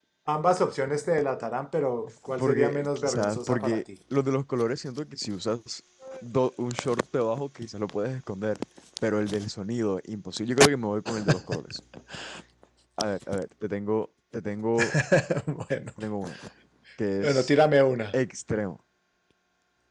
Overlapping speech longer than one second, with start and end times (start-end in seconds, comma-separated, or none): 2.4-3.8